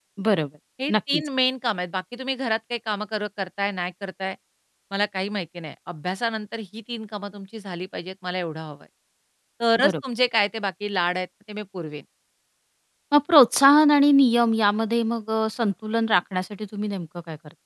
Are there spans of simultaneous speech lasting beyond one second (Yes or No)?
No